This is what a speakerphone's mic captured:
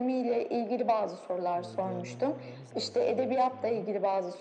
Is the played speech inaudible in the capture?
No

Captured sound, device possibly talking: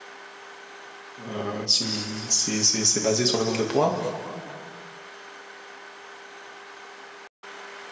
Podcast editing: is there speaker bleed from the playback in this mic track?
No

